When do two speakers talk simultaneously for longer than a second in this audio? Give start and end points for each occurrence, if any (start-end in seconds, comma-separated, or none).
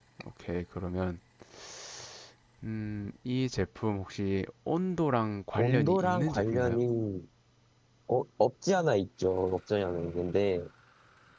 5.6-6.8